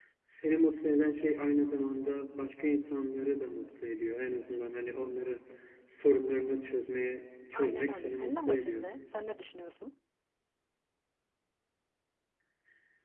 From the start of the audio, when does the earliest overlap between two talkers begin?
8 s

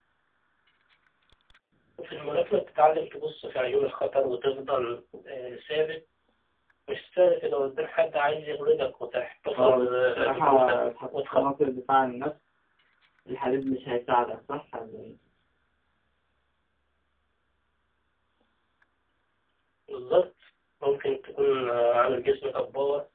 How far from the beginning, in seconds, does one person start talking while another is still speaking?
10 s

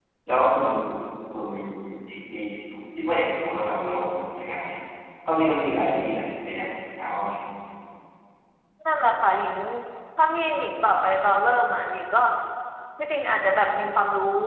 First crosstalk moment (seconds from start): none

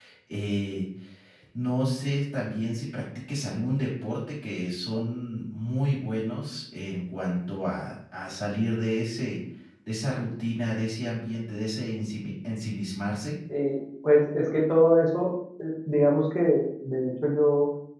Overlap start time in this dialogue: none

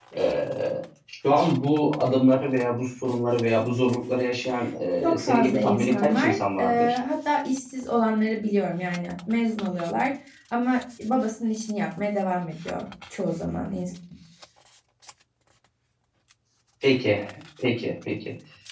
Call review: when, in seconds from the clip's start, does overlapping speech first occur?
5 s

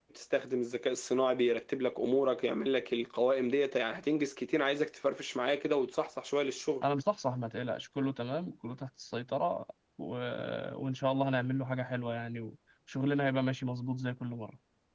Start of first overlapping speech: none

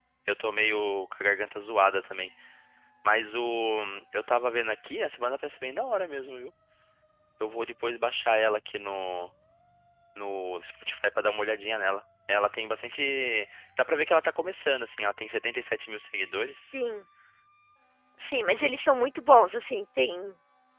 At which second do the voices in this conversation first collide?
none

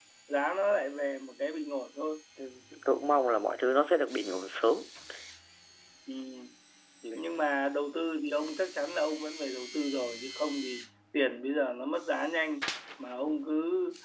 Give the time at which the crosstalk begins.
none

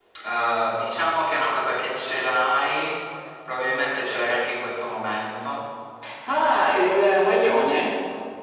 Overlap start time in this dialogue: none

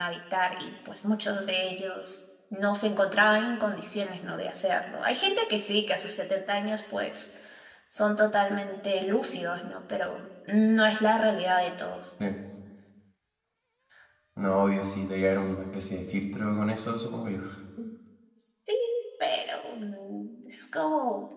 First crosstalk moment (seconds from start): none

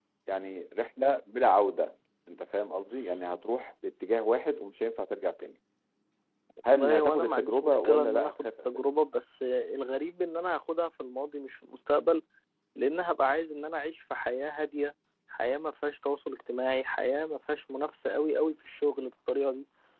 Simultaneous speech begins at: 7 s

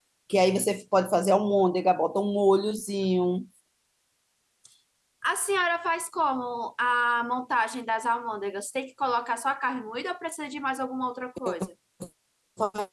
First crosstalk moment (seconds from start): none

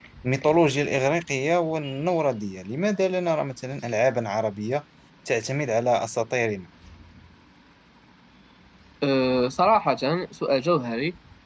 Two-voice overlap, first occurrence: none

